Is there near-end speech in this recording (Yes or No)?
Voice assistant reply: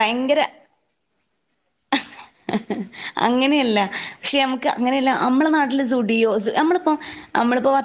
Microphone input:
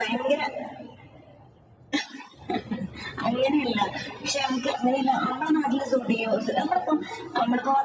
No